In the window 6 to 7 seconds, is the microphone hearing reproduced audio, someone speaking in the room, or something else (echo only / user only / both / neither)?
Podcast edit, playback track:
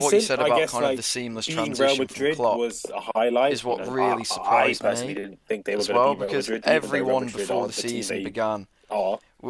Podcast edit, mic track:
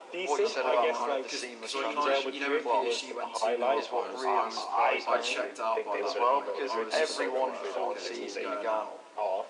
both